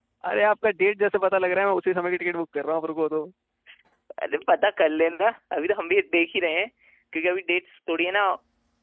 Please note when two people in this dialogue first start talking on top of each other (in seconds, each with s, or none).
none